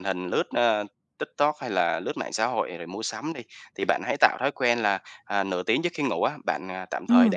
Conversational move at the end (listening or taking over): listening